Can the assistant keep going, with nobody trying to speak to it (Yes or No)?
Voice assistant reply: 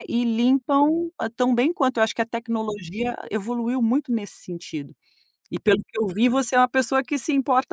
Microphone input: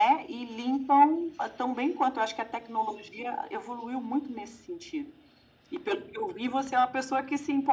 Yes